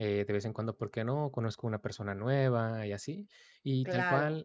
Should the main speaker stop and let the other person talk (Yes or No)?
No